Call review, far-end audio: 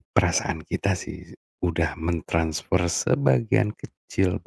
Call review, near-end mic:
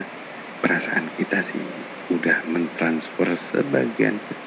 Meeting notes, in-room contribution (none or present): none